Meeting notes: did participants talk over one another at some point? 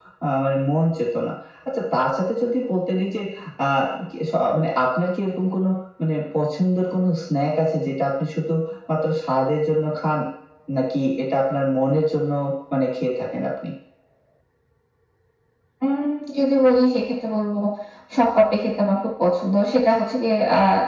No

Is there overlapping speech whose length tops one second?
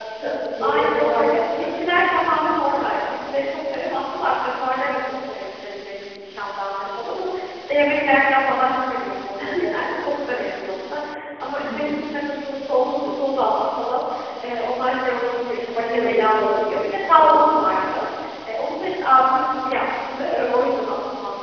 Yes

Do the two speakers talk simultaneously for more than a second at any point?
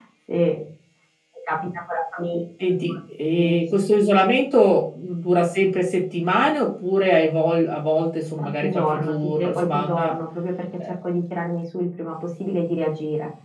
Yes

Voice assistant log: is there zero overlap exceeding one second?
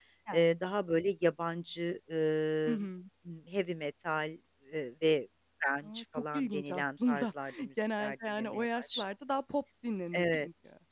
No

